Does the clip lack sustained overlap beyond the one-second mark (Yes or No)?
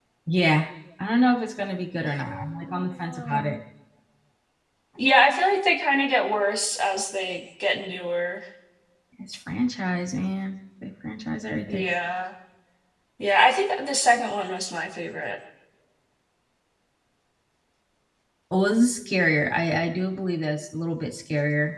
No